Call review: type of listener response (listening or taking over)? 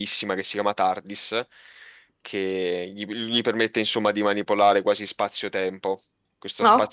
listening